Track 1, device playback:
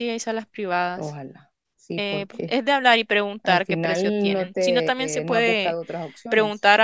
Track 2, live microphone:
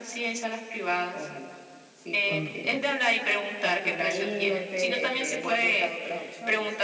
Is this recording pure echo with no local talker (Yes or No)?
No